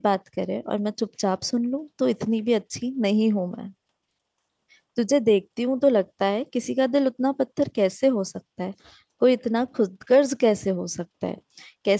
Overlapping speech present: No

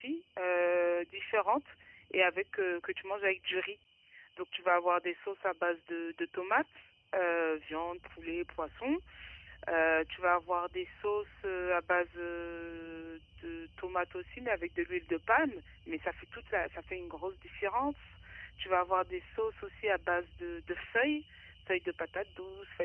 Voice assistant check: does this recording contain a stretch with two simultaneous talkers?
No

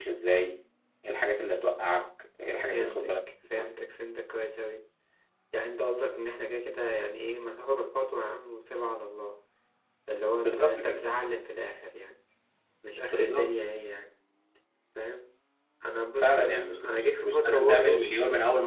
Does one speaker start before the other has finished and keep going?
Yes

